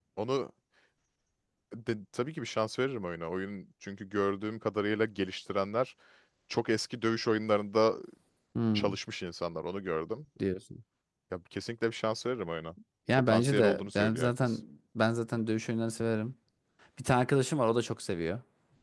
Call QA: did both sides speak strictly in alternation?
No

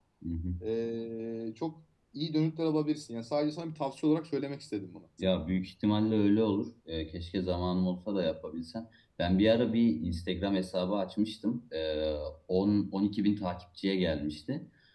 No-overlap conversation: Yes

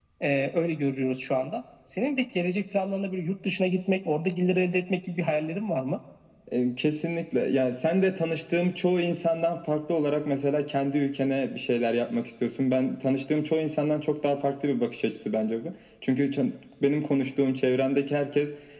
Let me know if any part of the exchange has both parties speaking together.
No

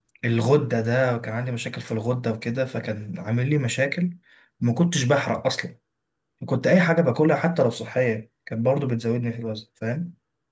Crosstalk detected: No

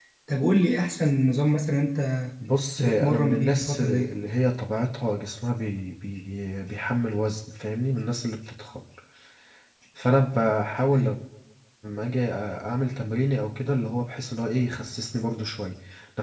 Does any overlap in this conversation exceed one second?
Yes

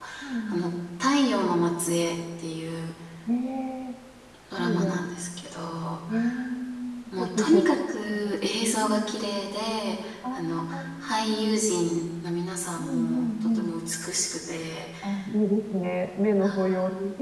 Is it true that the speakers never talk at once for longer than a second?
No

